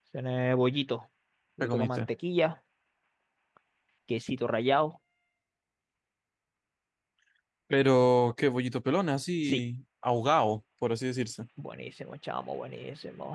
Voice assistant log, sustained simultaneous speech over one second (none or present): none